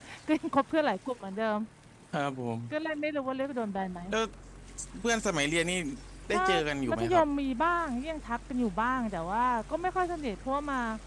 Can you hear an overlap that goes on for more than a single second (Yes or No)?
No